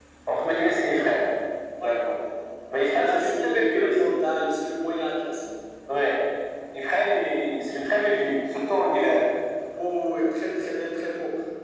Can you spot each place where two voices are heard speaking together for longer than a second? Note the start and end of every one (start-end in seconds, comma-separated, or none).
2.7-4.1